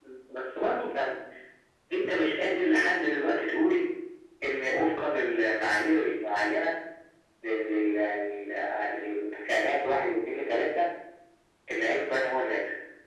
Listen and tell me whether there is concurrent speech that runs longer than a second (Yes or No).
No